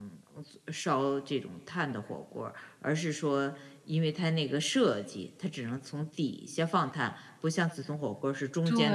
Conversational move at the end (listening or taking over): taking over